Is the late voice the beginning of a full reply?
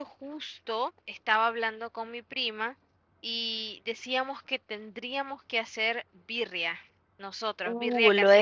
Yes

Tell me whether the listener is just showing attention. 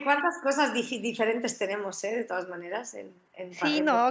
No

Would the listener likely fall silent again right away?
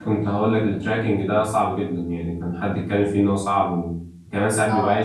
Yes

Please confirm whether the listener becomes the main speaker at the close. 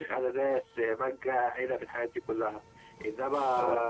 No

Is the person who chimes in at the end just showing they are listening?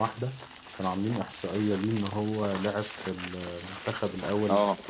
Yes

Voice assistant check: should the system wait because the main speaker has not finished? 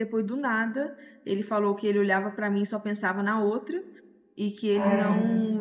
Yes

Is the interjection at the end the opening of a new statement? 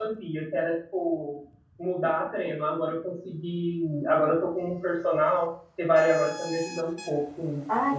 Yes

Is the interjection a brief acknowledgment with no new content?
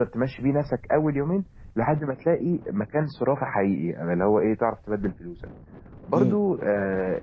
Yes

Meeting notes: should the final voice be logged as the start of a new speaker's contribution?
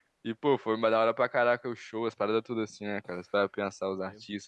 Yes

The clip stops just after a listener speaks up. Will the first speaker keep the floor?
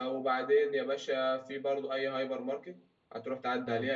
Yes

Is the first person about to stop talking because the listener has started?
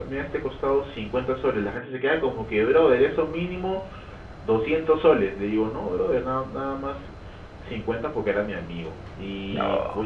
No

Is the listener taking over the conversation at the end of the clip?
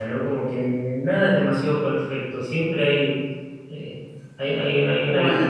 No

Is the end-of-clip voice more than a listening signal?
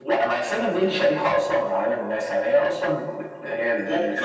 No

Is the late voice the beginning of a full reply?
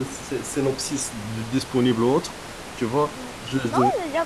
Yes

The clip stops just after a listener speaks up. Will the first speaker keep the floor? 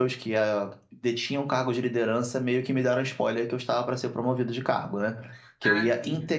Yes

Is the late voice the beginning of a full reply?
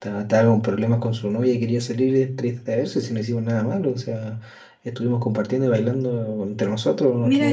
Yes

